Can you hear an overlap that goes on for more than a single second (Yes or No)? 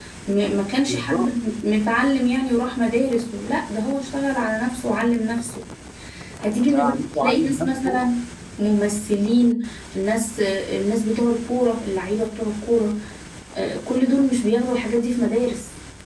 Yes